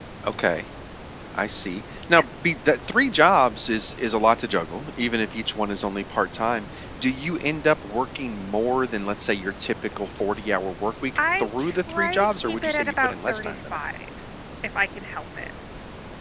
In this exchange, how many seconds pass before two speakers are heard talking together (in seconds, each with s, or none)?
11.2 s